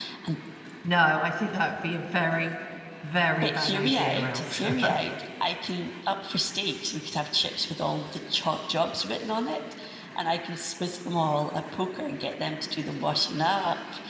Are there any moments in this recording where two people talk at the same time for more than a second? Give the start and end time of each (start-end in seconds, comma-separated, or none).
3.4-4.9